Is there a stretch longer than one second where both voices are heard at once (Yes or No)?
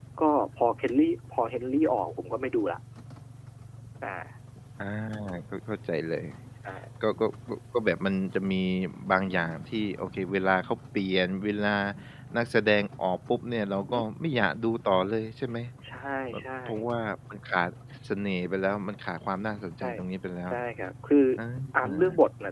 No